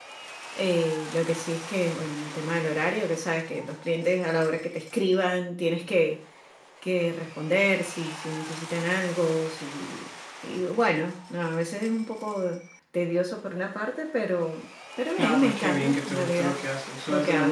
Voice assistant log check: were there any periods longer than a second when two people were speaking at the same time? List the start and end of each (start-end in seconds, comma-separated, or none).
15.2-16.6